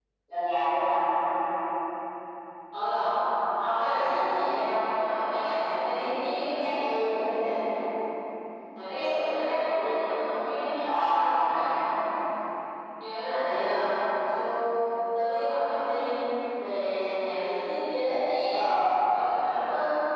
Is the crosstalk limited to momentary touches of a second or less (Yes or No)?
Yes